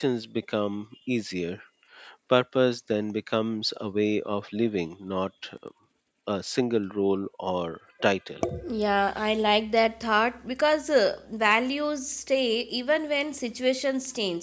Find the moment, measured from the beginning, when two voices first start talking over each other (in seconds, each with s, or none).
none